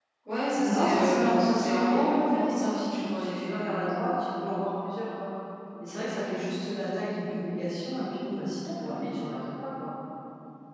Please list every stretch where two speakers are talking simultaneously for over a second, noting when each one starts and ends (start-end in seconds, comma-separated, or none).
0.6-3.9